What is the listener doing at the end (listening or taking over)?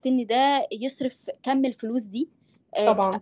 listening